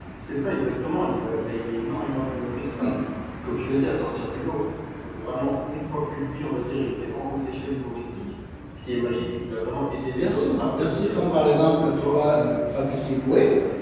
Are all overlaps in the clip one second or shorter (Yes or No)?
No